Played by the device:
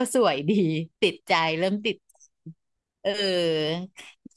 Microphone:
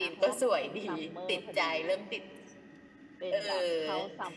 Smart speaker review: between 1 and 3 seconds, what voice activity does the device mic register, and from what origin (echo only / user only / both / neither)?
both